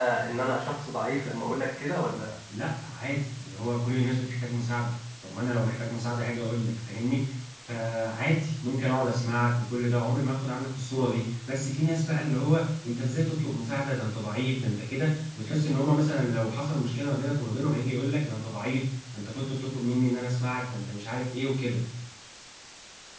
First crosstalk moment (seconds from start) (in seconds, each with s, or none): none